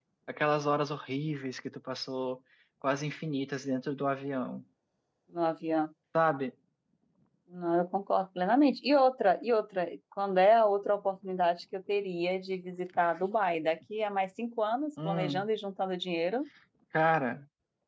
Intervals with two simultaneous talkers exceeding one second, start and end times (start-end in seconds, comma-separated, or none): none